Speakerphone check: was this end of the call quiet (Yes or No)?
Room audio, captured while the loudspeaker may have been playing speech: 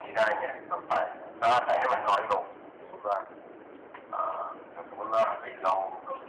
Yes